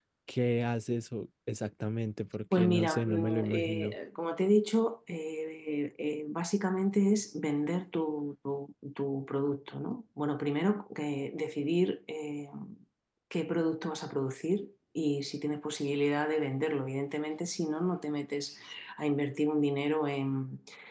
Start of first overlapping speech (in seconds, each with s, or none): 2.5 s